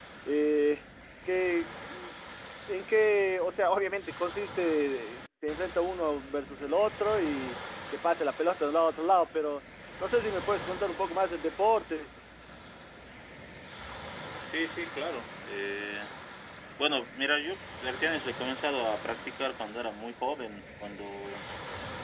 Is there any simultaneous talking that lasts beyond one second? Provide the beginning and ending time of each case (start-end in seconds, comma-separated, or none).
none